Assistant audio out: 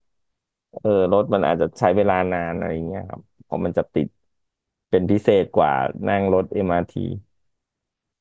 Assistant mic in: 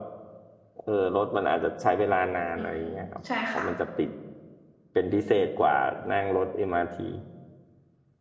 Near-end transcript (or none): อืมใช่ค่ะ